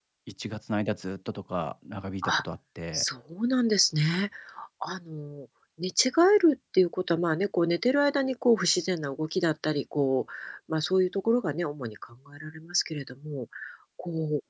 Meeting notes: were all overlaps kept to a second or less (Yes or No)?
Yes